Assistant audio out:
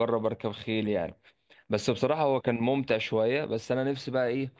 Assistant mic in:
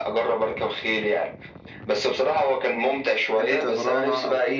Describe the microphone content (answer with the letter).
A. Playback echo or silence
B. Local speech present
B